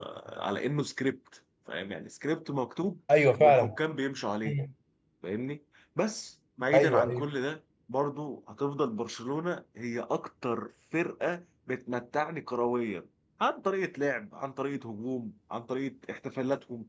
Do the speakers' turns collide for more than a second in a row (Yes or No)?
No